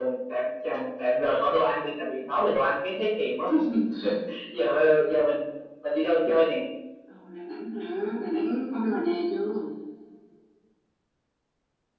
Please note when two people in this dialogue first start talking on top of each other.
none

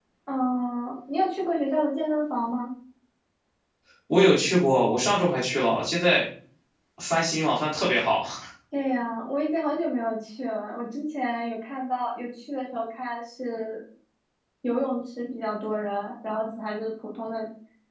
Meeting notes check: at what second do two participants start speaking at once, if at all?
none

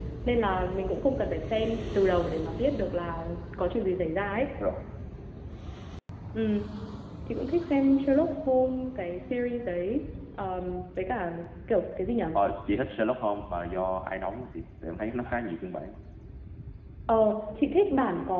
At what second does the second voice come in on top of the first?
none

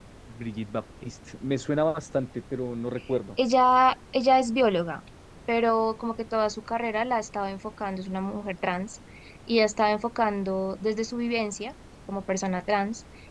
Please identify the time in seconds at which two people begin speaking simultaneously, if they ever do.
none

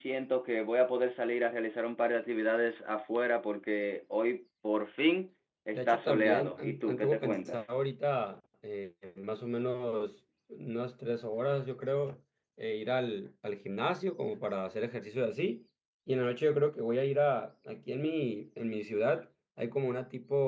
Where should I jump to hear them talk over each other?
5.8 s

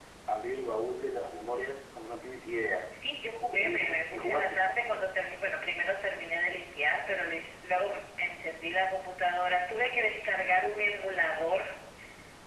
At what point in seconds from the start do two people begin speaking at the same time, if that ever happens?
3.4 s

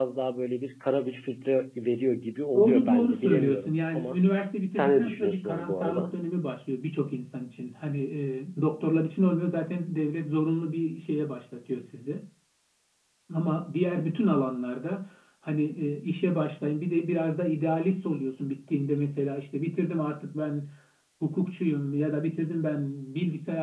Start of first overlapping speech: 2.5 s

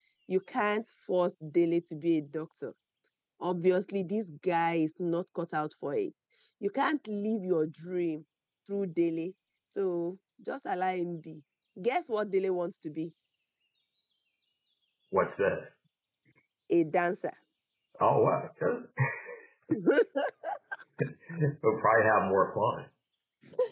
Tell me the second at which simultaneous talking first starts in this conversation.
none

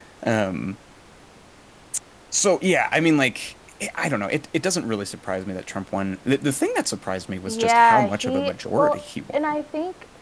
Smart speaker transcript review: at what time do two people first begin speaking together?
7.5 s

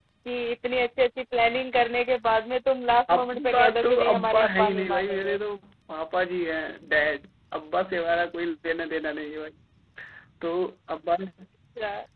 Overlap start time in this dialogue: 3.1 s

